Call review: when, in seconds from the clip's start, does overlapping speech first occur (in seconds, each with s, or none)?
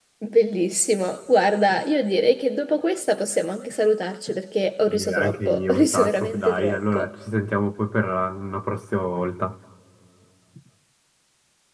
4.9 s